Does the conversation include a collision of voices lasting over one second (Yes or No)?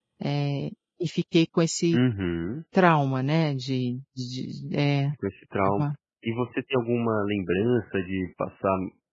No